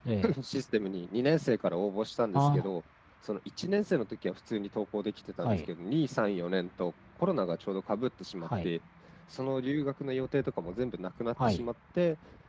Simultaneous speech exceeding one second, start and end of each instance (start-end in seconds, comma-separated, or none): none